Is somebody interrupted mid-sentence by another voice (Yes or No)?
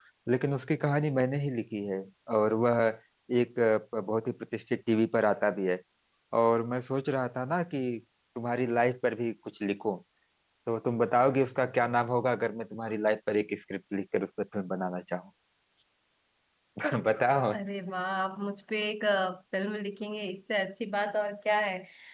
No